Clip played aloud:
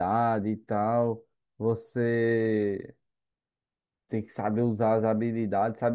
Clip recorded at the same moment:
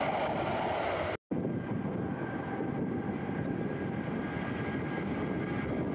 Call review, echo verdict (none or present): none